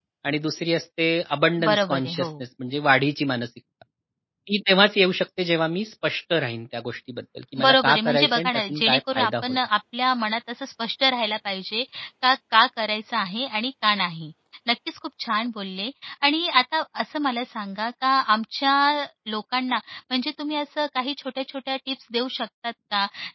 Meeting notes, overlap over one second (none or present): present